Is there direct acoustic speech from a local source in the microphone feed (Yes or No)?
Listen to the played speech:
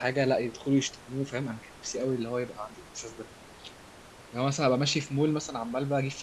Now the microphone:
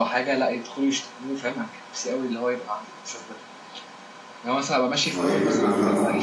Yes